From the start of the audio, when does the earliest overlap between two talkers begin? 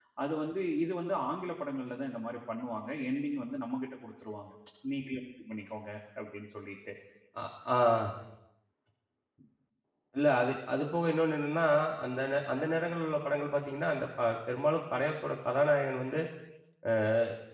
none

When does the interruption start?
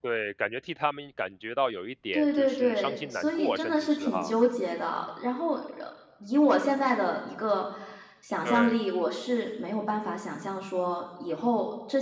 2 s

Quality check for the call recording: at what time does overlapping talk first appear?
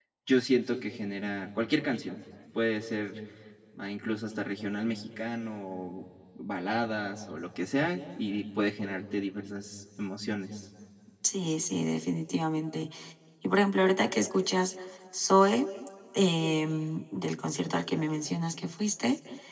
none

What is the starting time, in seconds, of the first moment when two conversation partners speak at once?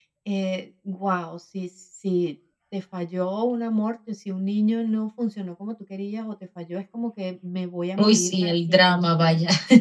8 s

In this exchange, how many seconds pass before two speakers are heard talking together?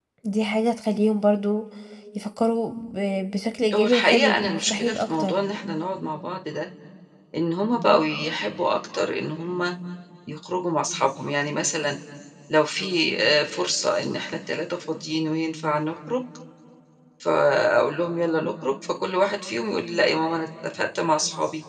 4 s

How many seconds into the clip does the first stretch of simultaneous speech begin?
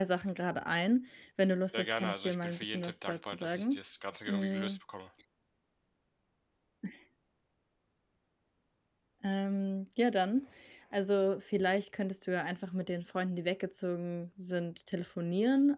2 s

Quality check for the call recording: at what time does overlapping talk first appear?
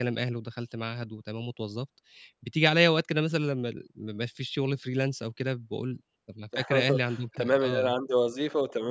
7 s

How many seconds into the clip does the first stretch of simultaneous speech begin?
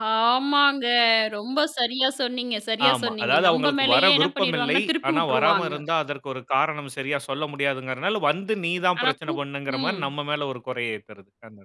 3 s

